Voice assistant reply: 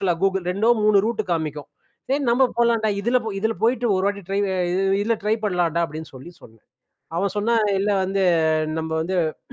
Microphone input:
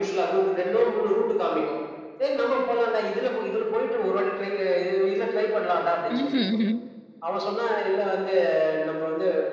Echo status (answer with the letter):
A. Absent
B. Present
B